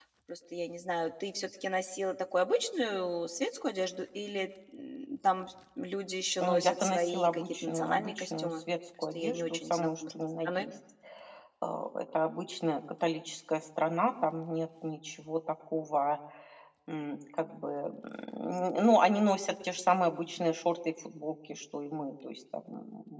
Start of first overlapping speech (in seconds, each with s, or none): 6.4 s